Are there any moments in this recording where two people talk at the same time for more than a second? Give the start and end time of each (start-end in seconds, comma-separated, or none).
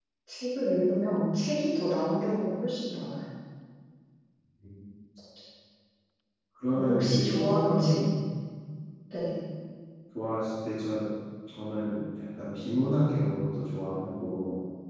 6.7-8.0